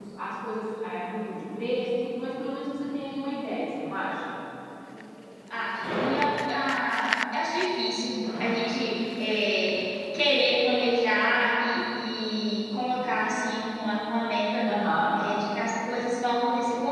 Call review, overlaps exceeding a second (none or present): none